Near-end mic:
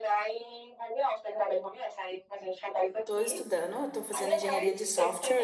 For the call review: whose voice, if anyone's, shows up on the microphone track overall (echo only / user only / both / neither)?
both